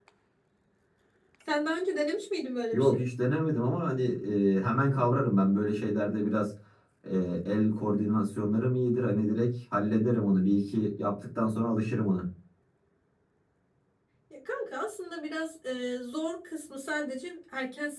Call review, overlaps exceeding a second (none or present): none